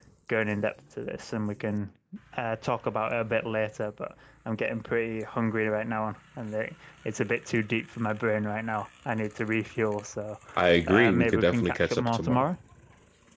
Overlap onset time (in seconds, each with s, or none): 10.9 s